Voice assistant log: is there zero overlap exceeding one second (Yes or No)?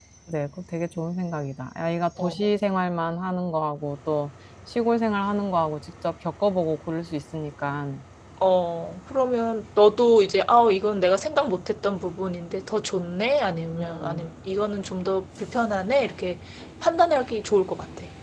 Yes